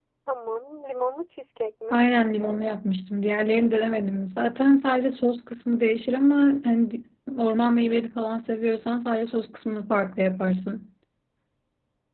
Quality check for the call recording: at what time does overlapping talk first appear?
none

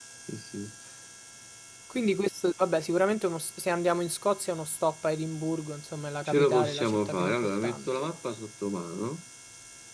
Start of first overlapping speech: 6.2 s

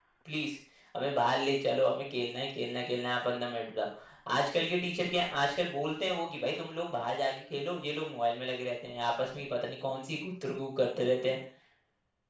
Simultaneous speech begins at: none

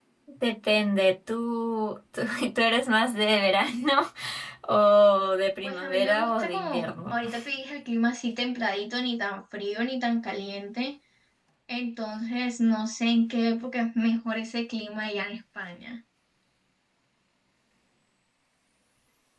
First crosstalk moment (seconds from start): 5.6 s

